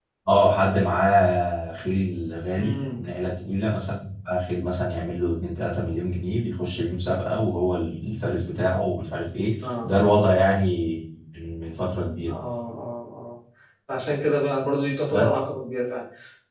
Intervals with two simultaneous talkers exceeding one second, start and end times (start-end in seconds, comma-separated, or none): none